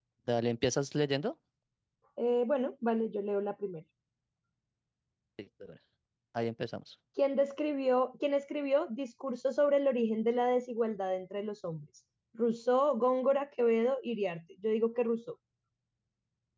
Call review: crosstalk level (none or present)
none